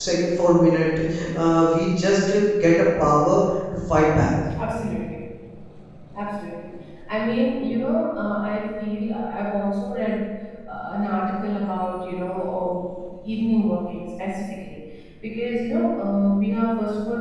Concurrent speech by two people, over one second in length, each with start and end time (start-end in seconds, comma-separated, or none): none